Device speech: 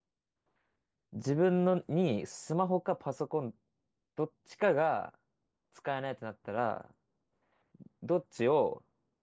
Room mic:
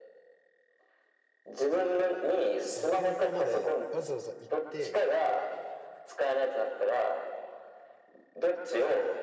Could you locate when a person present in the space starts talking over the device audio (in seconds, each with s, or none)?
2.6 s